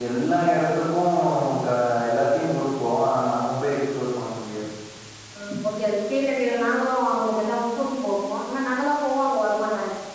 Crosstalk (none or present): none